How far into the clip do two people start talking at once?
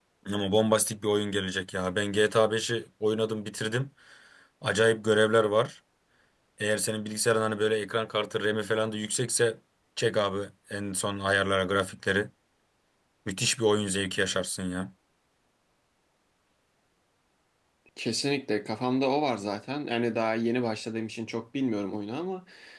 none

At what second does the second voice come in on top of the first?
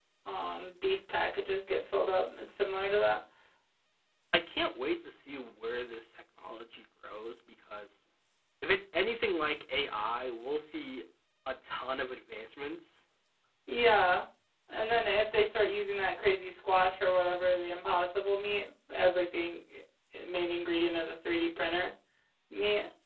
none

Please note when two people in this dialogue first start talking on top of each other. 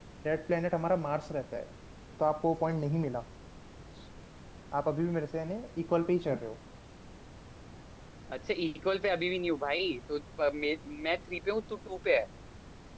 none

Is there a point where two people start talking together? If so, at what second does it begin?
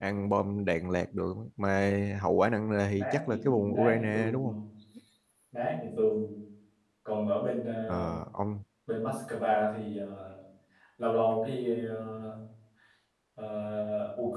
3.0 s

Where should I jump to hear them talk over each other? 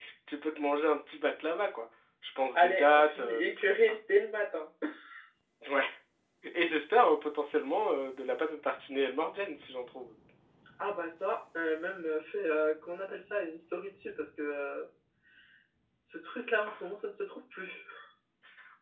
2.6 s

